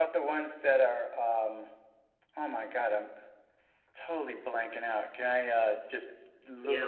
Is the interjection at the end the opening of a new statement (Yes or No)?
Yes